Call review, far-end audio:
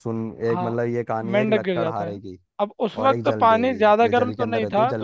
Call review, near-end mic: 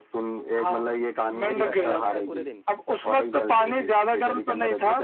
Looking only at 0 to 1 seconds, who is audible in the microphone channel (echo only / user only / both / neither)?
echo only